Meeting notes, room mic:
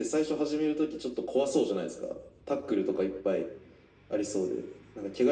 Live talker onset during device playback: none

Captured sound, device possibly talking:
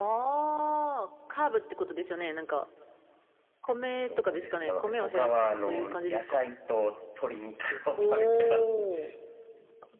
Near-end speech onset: none

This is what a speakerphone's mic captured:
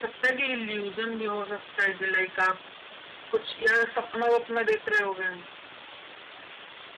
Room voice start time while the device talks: none

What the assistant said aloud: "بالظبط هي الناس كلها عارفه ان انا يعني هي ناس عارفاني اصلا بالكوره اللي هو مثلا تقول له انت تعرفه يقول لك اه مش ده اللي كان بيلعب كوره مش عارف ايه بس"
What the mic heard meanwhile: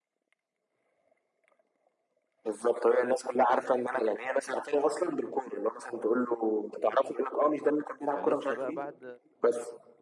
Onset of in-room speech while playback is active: 8 s

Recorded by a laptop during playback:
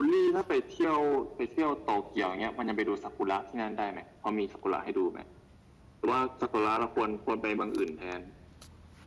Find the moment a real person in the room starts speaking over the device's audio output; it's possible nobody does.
none

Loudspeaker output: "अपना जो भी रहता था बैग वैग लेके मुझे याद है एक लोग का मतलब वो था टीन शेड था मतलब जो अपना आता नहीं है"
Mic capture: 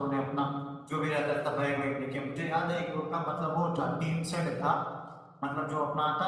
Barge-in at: none

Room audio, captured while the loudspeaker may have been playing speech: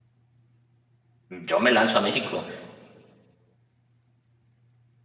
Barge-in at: 1 s

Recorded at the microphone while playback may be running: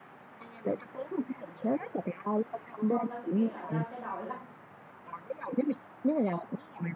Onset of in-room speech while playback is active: 3 s

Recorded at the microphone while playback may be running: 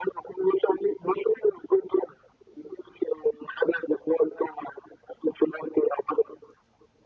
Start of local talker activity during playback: none

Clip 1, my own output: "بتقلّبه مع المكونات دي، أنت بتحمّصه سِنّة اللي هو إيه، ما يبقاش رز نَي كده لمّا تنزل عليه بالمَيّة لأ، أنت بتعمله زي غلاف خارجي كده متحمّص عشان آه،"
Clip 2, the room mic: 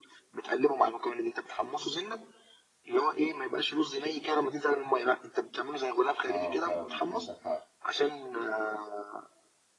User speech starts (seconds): 6 s

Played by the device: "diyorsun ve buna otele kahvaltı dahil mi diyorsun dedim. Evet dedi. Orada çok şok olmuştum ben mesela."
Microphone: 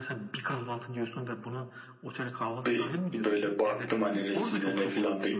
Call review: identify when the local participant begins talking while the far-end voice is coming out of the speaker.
3 s

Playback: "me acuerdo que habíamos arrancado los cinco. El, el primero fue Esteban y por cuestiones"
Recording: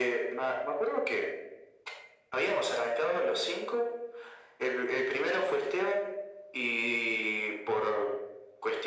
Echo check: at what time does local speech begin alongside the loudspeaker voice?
none

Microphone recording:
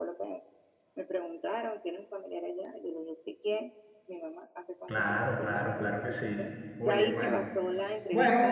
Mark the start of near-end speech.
5 s

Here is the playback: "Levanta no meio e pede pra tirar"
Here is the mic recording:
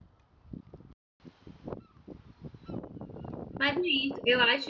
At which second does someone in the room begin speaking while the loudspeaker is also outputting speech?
4 s

